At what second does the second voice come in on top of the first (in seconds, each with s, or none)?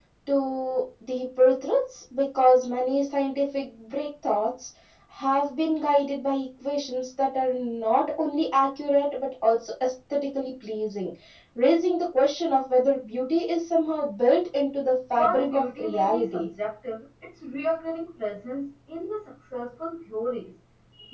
15.2 s